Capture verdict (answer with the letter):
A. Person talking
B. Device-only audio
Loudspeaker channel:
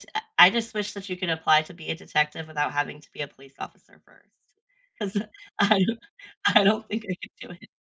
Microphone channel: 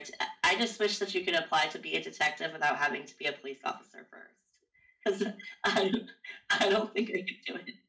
B